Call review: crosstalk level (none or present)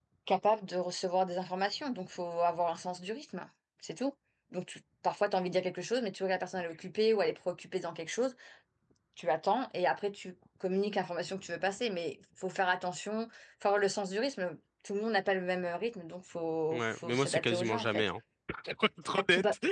present